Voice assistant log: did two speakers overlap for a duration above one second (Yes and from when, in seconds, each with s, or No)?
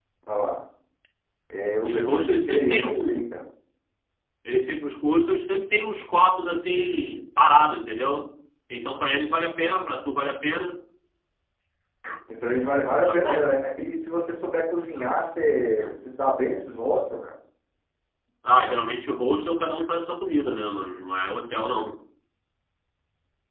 Yes, from 1.8 s